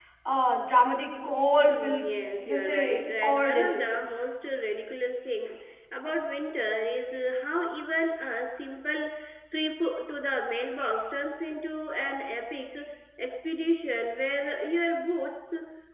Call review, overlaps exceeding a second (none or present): present